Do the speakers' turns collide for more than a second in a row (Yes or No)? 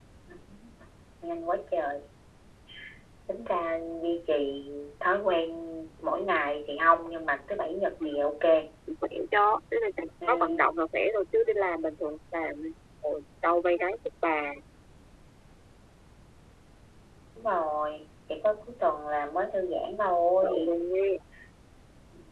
No